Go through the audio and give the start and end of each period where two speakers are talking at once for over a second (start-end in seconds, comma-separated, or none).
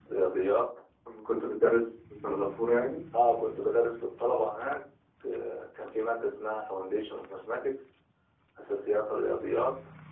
none